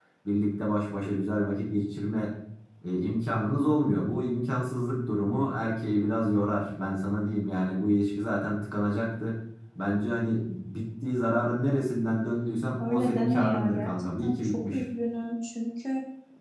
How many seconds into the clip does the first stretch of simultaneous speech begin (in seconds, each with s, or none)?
12.8 s